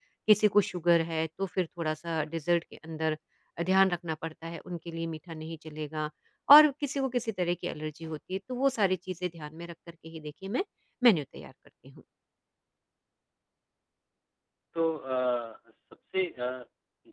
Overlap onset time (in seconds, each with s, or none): none